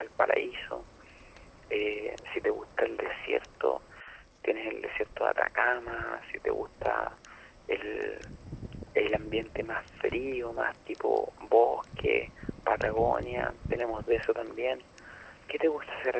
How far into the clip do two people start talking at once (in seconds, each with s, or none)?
none